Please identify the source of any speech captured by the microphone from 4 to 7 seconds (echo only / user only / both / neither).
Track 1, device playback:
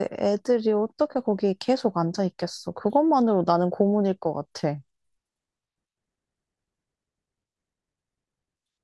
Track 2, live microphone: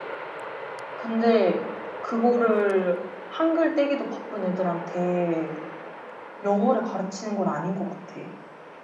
user only